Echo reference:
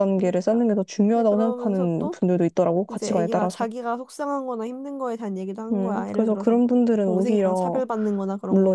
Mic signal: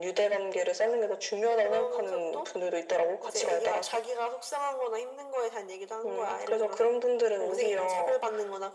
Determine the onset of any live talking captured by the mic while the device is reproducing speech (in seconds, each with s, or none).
none